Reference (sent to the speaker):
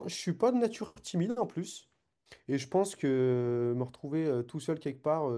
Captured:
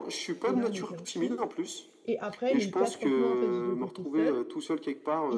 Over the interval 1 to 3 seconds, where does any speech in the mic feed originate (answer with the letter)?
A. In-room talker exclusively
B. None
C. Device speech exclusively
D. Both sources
D